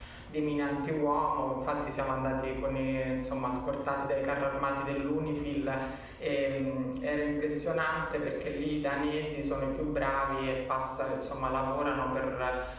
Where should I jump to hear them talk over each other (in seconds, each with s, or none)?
none